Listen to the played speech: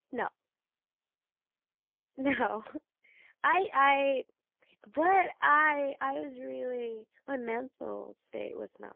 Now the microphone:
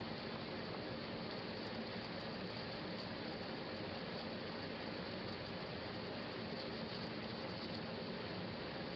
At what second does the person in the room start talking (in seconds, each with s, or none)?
none